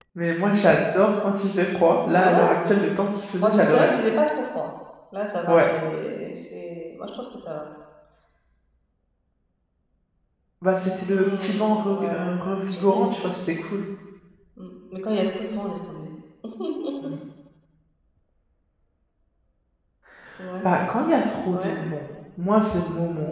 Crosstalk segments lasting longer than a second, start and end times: 11.1-13.4

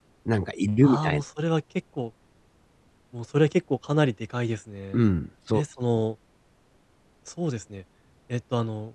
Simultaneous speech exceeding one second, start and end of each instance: none

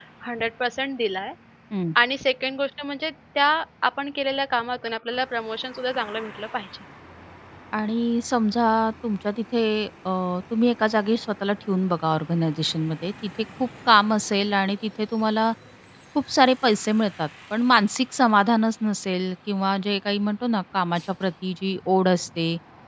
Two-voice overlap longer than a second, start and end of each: none

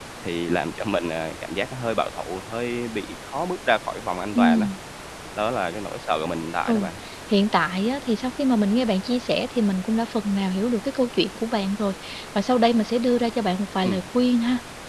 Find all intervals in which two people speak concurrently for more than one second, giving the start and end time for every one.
none

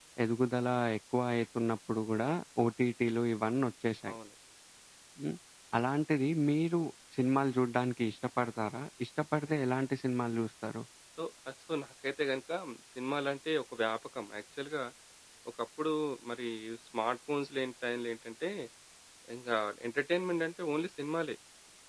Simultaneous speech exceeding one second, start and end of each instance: none

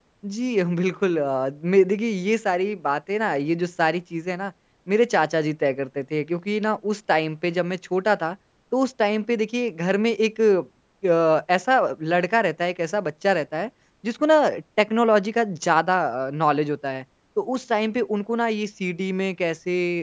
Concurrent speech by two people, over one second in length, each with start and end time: none

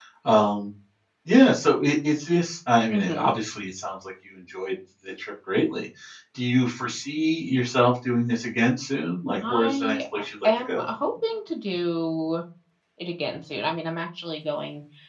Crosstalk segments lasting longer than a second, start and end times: 9.5-10.9

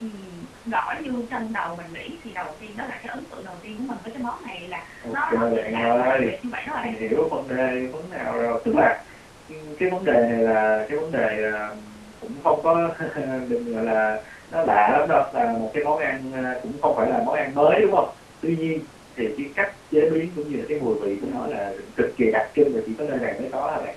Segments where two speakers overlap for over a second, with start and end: 5.0-6.3

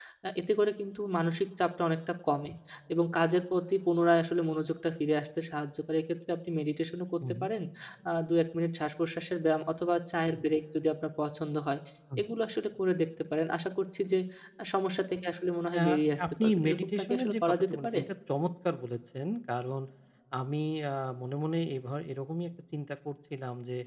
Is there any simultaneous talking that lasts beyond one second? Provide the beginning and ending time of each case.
16.4-18.0

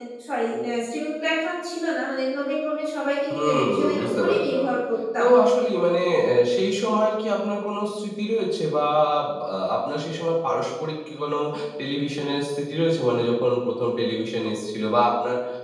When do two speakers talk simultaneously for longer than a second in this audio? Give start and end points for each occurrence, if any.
3.3-4.6

